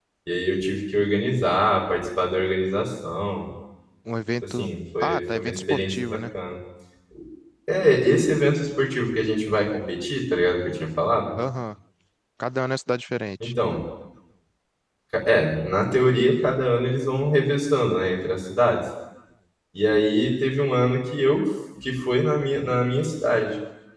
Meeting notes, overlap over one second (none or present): present